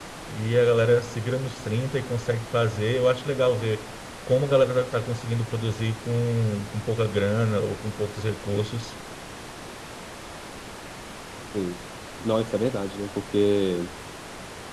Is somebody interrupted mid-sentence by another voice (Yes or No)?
No